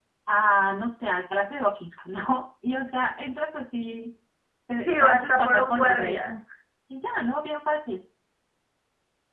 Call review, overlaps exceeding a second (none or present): present